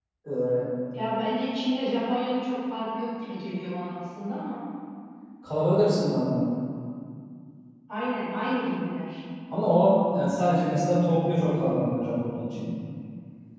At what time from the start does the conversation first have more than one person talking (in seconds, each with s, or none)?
none